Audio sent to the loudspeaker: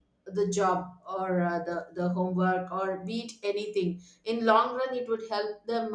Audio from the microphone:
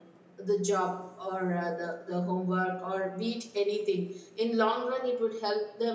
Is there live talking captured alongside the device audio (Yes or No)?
No